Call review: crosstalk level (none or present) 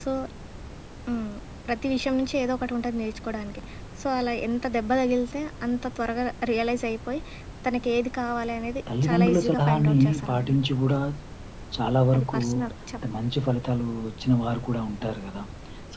present